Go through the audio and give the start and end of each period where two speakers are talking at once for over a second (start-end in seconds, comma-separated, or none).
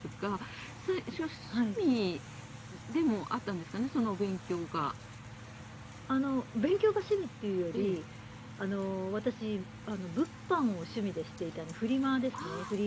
none